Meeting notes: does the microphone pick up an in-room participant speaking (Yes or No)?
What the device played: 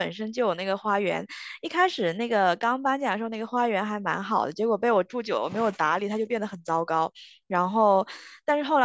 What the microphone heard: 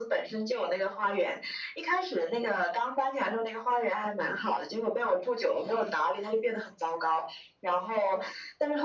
No